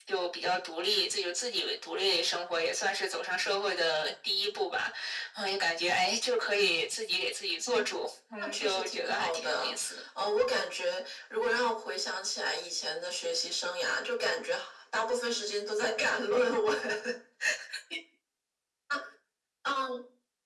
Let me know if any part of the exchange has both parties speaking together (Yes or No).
Yes